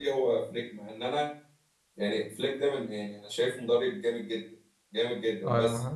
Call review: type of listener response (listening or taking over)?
taking over